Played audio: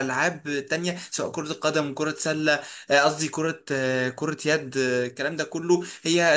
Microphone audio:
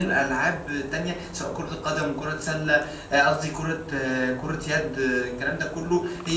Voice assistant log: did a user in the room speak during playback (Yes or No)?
No